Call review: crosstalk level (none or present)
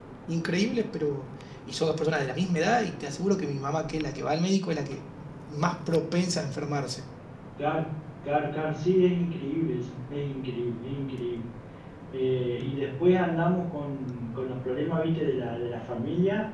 none